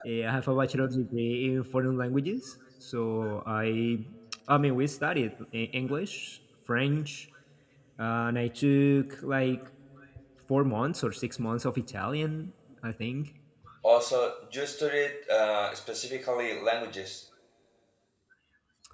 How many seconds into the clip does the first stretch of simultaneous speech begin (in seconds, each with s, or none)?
none